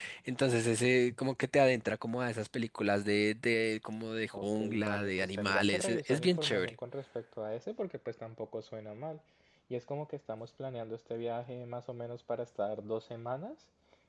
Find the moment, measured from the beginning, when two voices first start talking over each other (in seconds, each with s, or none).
4.3 s